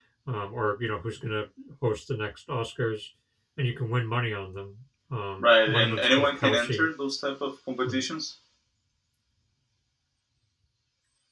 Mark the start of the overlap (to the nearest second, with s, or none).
5 s